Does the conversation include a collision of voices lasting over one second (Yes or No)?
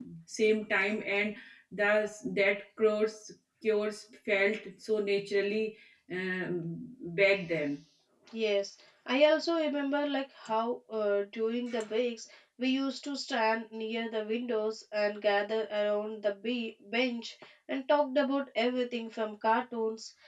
No